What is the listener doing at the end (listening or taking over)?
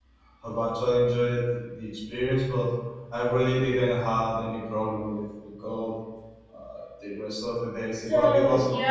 taking over